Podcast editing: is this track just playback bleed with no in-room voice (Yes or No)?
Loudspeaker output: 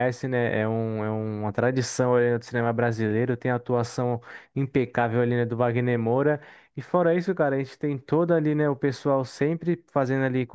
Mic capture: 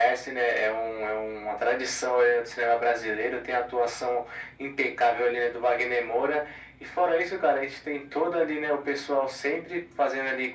Yes